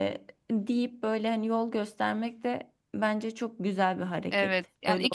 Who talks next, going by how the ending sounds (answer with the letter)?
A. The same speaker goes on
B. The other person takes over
B